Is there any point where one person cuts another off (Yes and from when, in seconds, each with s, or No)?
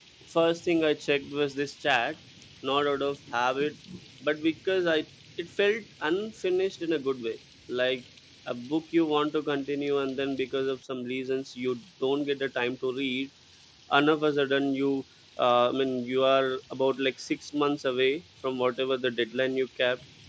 No